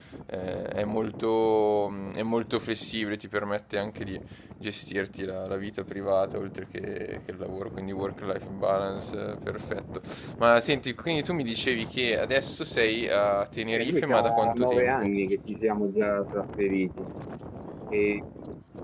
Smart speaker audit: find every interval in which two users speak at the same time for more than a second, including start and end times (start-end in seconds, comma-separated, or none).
13.7-15.1